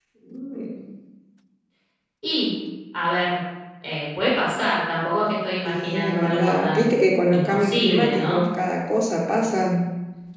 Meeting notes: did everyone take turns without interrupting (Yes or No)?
No